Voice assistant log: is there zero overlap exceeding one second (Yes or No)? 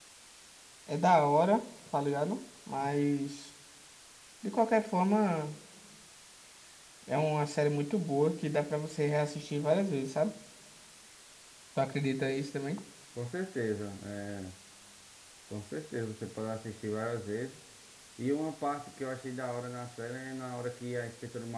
Yes